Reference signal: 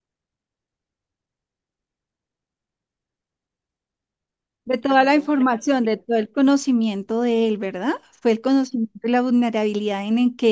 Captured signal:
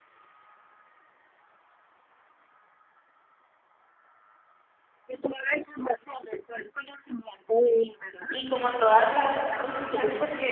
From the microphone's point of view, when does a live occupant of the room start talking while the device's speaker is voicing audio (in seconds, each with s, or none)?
8.3 s